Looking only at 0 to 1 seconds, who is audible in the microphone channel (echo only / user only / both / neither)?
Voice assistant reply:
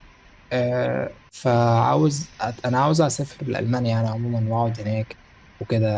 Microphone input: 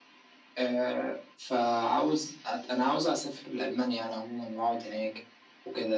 echo only